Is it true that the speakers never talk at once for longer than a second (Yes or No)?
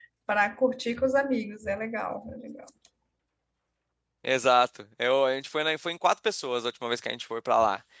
Yes